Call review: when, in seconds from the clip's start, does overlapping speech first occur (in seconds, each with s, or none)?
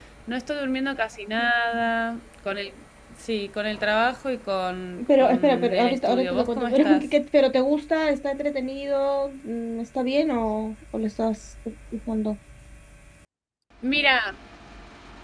5.0 s